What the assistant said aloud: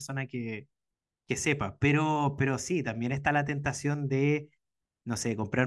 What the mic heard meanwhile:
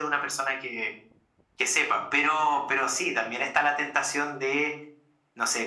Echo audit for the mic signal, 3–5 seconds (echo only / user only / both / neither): echo only